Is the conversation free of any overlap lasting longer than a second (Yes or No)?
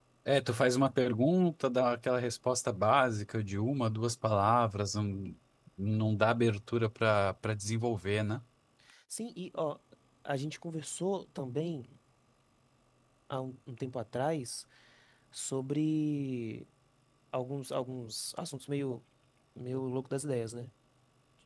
Yes